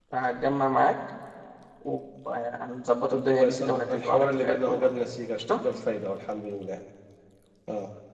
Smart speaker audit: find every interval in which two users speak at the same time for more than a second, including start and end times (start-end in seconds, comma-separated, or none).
3.1-4.9